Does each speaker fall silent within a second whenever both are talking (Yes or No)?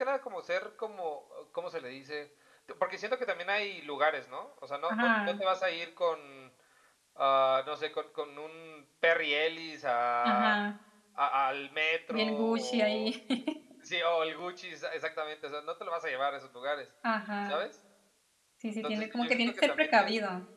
No